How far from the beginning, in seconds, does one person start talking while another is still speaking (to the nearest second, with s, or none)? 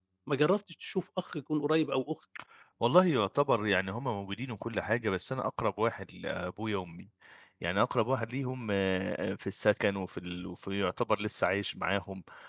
none